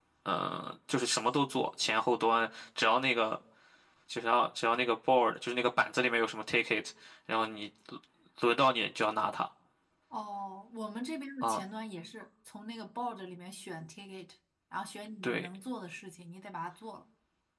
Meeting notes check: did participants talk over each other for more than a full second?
No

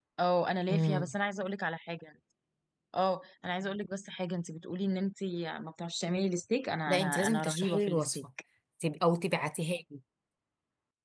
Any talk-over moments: Yes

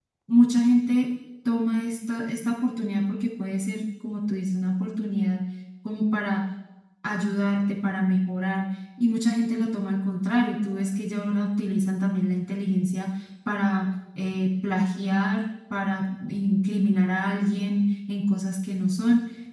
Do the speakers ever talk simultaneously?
No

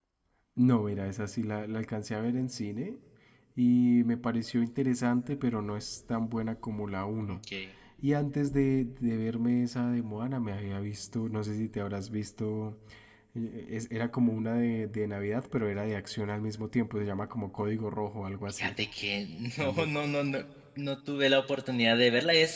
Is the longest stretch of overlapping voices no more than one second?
Yes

